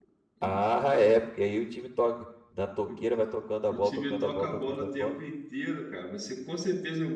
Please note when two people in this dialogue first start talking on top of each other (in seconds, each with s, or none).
3.7 s